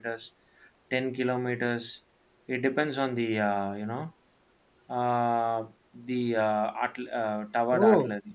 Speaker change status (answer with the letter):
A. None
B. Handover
A